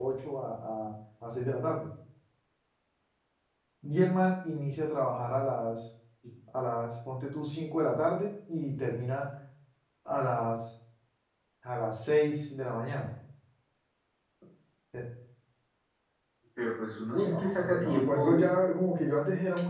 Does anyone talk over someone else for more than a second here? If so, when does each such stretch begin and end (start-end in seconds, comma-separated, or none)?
17.1-18.4